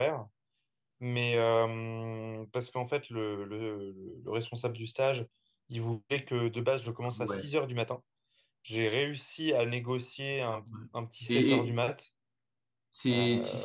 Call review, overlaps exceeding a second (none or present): none